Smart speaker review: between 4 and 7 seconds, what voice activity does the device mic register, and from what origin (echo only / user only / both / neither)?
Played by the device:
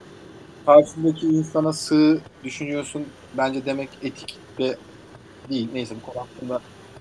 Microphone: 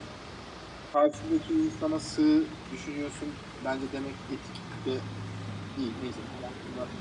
echo only